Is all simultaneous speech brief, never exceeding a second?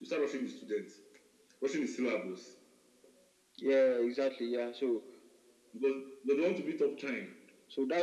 Yes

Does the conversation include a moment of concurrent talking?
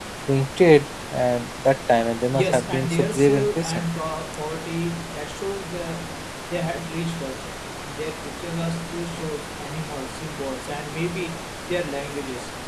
Yes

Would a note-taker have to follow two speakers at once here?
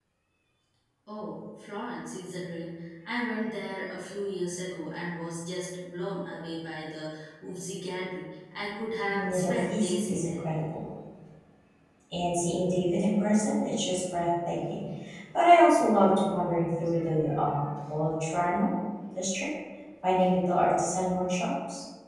Yes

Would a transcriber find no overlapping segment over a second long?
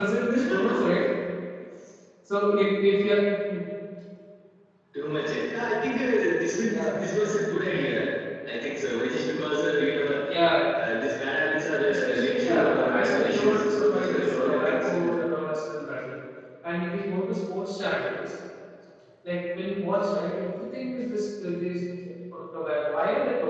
No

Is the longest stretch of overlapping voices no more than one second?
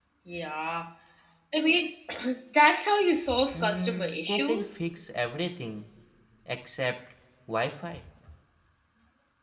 No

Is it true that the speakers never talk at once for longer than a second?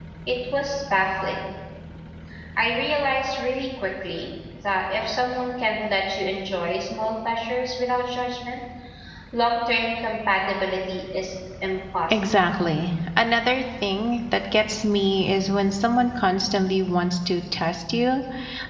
Yes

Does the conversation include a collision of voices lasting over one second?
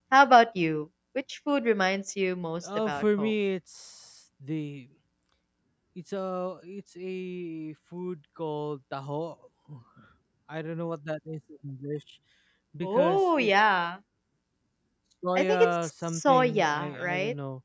Yes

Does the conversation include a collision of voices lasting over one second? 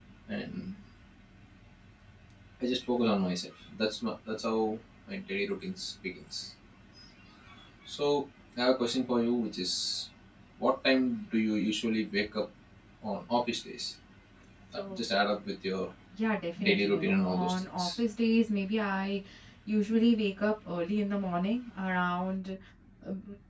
Yes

